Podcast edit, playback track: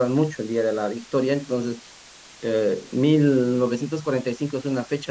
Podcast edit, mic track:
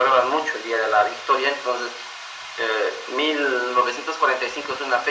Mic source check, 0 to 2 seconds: echo only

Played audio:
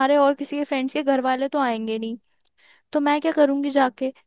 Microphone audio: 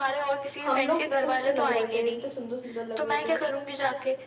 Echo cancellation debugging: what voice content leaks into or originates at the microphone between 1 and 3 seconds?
both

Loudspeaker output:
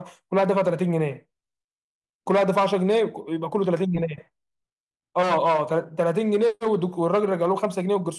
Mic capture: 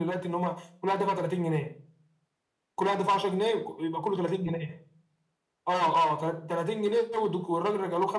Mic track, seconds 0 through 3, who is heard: echo only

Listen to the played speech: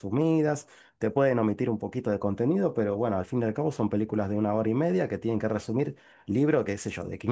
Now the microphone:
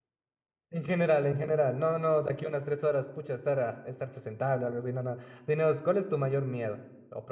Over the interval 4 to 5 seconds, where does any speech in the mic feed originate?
user only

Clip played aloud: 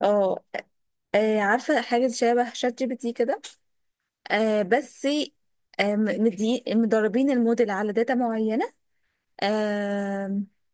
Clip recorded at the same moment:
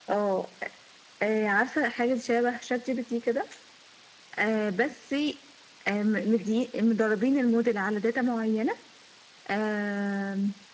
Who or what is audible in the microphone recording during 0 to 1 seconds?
echo only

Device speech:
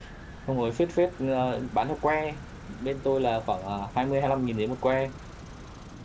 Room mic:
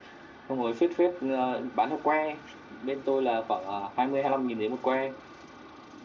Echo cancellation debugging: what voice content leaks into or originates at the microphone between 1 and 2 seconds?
echo only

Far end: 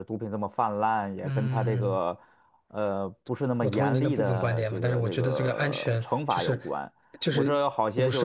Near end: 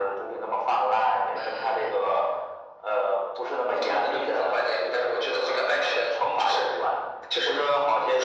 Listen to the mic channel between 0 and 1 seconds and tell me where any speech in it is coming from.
echo only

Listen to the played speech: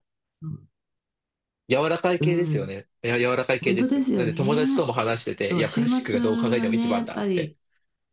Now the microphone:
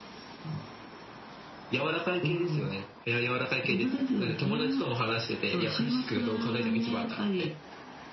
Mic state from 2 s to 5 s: echo only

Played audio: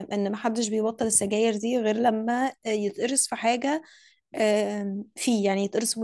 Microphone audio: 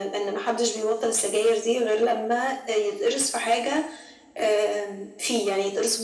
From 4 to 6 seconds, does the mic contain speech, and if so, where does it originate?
echo only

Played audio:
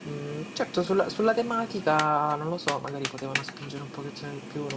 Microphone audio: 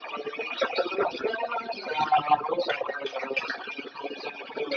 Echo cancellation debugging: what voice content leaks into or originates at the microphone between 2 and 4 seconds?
echo only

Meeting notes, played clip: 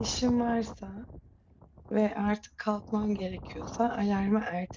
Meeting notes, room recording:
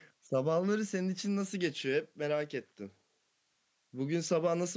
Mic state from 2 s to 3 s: user only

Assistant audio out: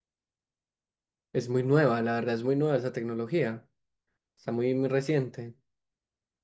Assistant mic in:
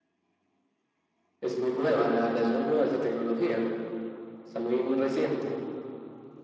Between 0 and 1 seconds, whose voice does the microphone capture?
neither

